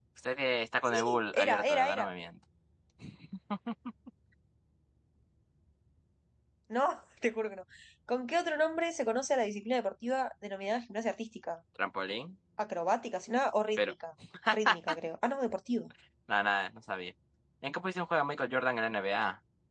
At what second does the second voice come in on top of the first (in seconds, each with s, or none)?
0.8 s